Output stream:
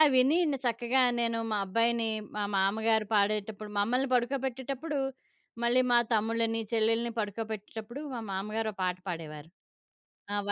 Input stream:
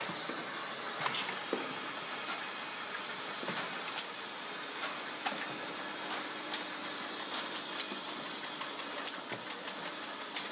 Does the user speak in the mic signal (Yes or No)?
No